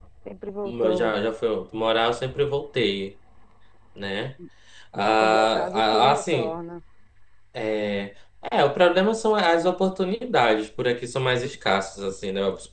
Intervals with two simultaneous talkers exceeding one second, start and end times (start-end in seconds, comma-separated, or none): 5.2-6.5